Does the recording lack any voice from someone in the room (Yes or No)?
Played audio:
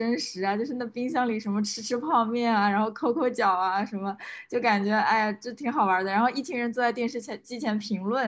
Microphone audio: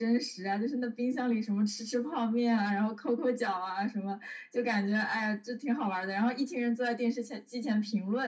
Yes